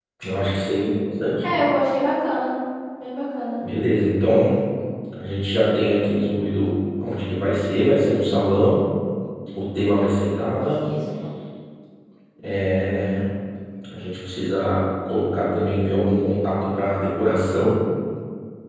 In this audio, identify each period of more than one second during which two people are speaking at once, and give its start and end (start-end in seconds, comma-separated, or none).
none